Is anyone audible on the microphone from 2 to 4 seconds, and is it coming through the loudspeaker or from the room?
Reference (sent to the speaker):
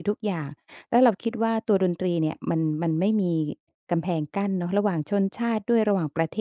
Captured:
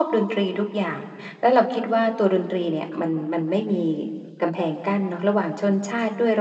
echo only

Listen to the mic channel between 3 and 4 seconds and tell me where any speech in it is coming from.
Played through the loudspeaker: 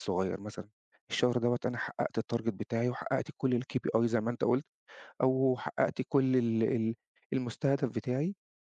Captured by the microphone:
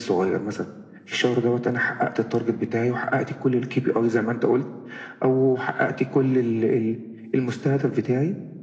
echo only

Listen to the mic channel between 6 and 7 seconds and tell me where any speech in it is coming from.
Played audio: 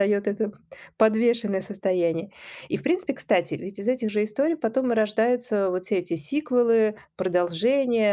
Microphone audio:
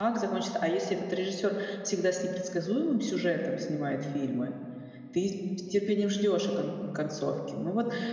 user only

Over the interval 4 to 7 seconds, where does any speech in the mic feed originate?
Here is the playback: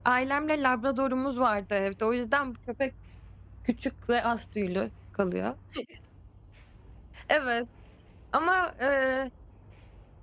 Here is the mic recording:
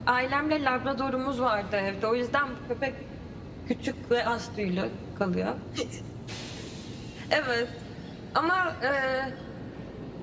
echo only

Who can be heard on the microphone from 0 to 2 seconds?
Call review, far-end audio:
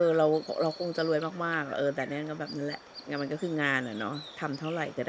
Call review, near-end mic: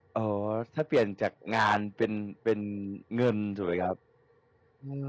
user only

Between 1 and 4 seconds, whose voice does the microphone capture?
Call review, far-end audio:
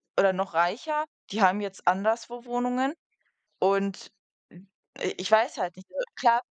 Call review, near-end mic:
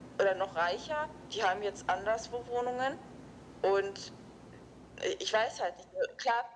echo only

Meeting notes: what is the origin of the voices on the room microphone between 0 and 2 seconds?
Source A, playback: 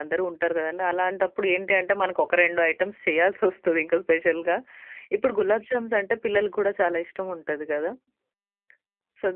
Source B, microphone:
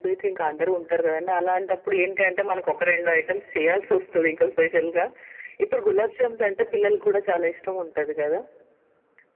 echo only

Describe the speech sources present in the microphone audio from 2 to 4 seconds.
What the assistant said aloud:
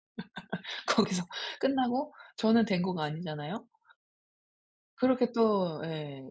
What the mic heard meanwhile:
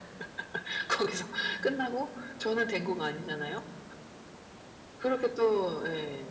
echo only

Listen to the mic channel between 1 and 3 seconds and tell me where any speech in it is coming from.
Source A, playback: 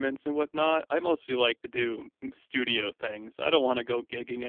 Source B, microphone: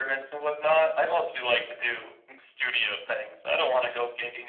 echo only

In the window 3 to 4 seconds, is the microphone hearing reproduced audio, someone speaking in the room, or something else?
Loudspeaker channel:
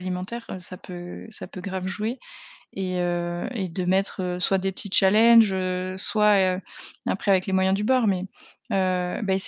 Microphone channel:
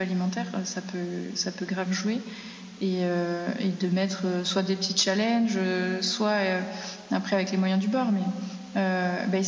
echo only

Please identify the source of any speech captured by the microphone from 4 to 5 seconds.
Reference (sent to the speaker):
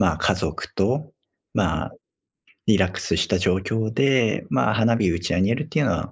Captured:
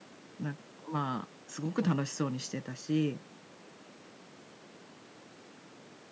neither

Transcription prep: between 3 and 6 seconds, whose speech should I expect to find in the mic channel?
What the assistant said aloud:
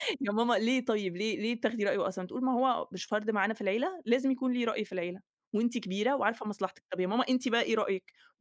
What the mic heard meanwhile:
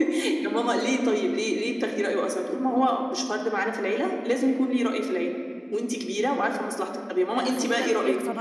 echo only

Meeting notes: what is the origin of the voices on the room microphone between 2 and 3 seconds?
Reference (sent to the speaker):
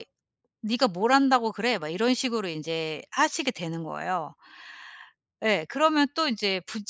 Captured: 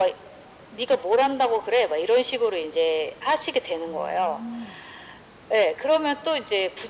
echo only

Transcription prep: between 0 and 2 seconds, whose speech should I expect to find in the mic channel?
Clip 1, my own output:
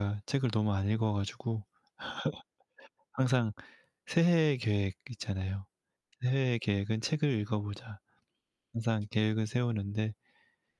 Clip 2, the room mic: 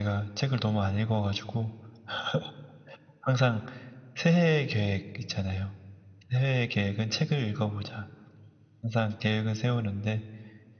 echo only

